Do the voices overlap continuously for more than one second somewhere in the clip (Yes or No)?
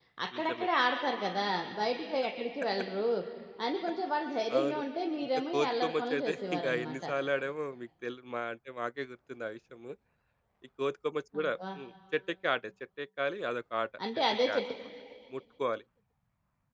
Yes